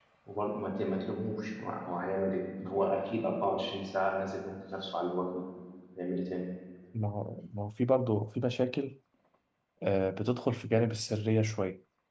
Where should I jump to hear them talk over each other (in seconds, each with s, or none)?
none